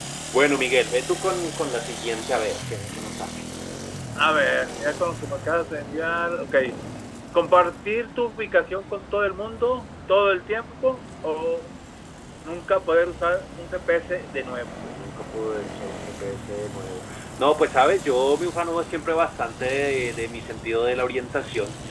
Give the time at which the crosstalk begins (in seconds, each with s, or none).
none